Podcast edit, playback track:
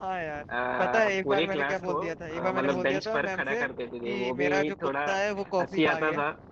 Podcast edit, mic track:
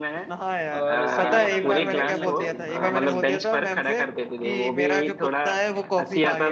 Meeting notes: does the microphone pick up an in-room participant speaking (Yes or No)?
Yes